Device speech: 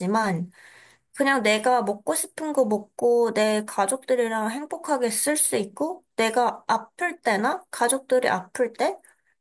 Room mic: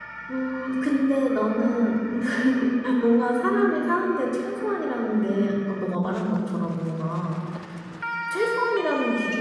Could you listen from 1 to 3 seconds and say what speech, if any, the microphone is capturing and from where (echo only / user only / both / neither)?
user only